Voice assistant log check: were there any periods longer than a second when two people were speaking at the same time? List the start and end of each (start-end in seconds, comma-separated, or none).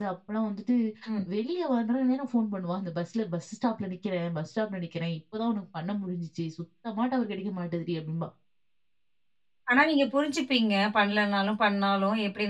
none